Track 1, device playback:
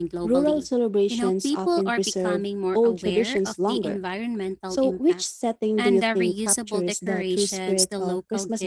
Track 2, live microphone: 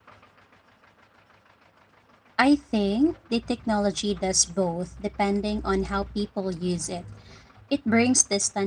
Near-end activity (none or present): present